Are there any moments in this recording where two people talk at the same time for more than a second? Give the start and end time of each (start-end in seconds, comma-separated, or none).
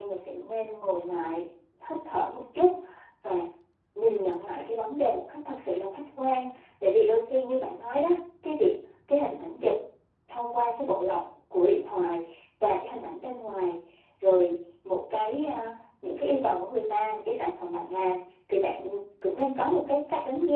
none